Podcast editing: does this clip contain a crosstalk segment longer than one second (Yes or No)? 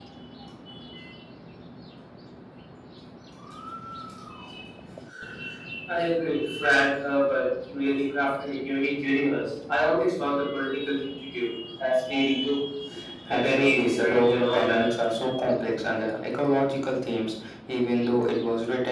Yes